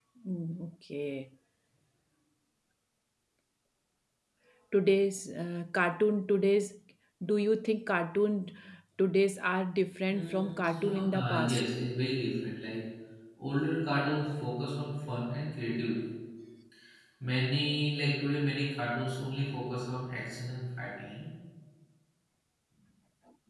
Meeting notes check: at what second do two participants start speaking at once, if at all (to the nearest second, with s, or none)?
10 s